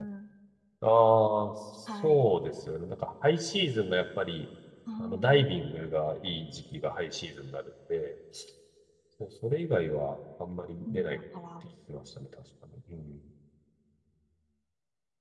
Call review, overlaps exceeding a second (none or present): none